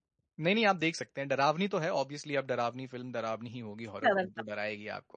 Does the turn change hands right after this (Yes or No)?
No